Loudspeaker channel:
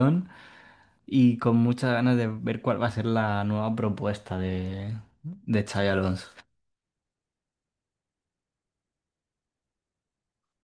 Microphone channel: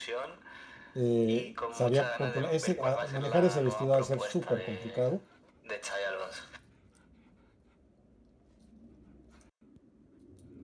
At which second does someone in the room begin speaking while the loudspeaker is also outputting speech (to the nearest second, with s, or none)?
1 s